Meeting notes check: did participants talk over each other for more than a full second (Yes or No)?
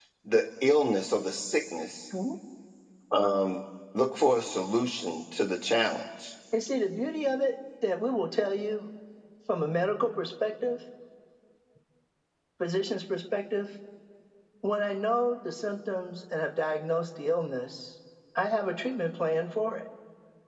No